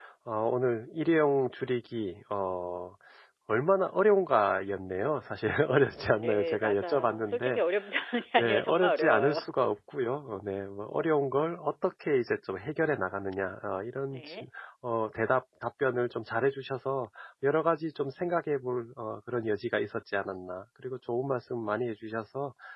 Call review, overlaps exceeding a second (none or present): present